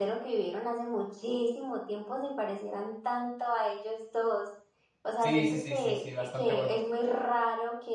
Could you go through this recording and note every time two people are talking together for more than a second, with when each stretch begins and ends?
5.2-6.8

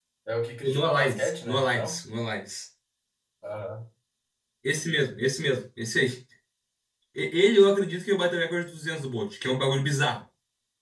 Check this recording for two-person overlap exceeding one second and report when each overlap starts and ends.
0.6-2.0

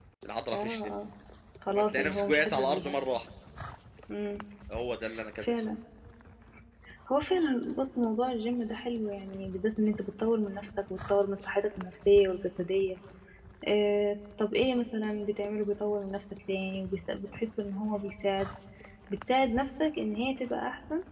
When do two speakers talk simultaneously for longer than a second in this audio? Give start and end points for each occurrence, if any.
1.7-3.0

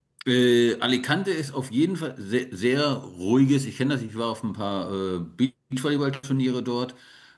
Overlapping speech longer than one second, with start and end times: none

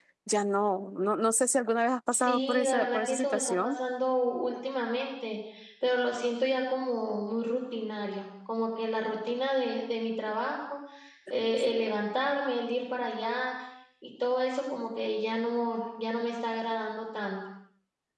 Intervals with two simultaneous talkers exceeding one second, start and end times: 2.1-3.7

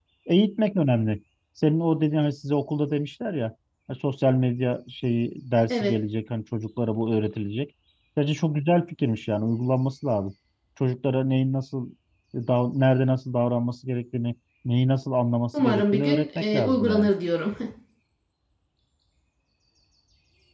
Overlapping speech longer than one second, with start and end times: 15.6-17.1

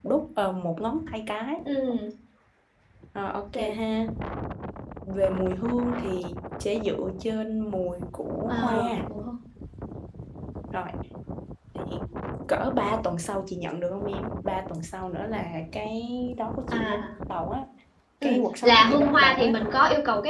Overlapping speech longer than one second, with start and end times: 18.2-19.5

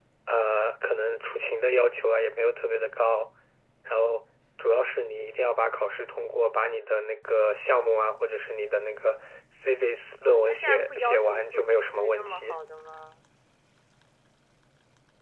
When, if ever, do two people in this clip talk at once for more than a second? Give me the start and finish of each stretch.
10.3-12.6

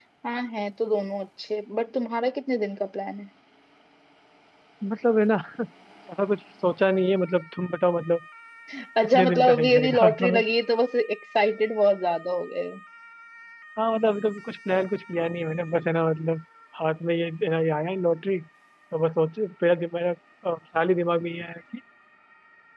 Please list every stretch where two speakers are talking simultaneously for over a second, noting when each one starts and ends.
9.0-10.3

